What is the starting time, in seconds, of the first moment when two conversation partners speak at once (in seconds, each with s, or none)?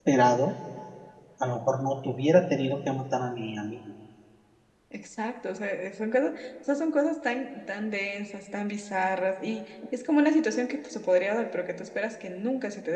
none